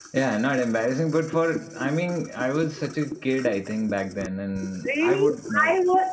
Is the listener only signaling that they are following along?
No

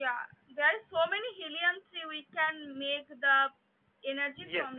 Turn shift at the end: Yes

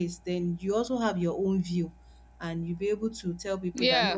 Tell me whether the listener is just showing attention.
Yes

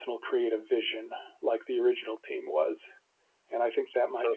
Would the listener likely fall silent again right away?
Yes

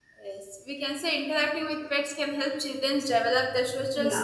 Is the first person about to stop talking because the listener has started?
No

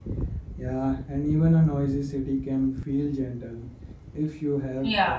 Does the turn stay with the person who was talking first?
No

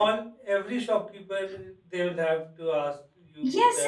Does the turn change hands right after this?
Yes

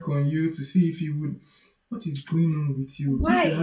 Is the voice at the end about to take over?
No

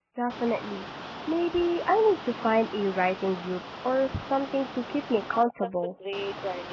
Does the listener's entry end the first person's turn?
Yes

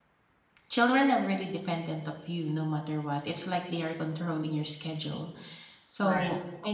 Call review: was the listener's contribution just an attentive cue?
Yes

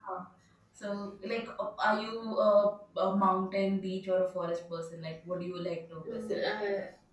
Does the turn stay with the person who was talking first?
No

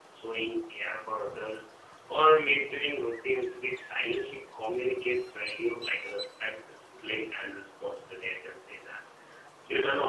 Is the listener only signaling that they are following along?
Yes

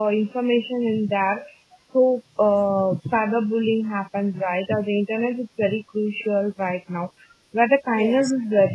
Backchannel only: Yes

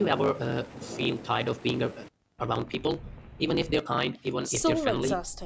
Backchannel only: No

